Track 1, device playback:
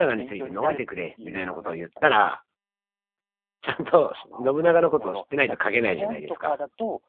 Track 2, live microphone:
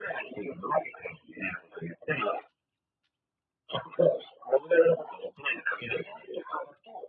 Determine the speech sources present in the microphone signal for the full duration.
echo only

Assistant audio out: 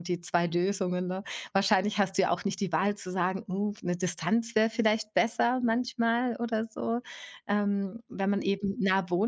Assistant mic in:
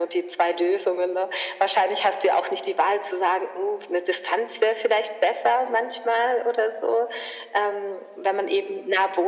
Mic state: echo only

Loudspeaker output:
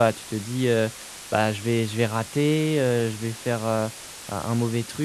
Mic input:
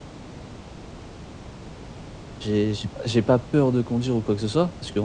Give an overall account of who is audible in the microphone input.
user only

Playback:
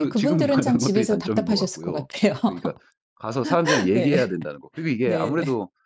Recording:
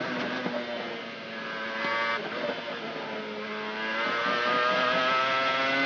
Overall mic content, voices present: neither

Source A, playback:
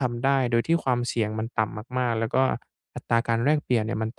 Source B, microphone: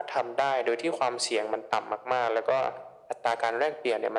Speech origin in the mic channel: echo only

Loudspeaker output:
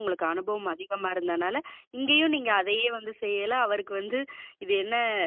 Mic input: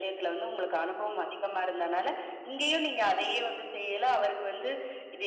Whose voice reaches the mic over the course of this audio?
echo only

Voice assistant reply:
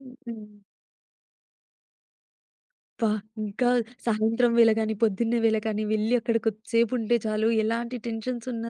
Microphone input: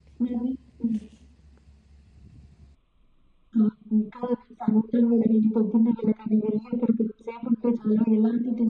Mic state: echo only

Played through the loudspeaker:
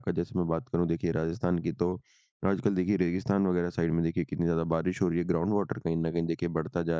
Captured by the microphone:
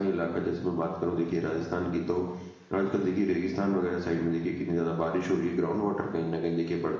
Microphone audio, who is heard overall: echo only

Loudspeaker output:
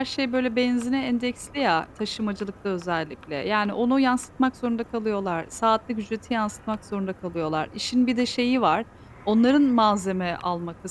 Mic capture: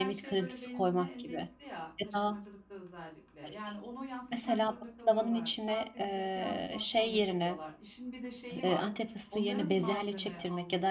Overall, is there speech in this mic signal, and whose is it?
both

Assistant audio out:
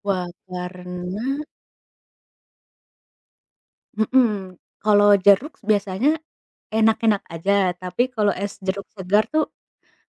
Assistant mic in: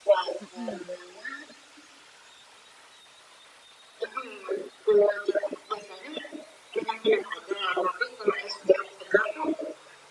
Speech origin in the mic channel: both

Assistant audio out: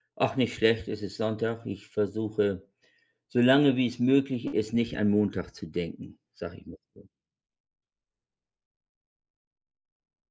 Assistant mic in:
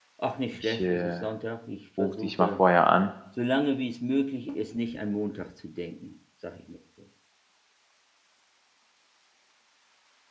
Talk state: both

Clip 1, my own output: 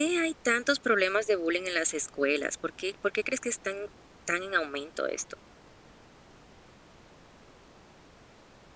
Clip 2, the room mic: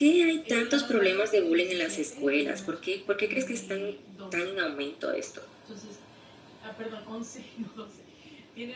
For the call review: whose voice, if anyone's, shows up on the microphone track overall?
both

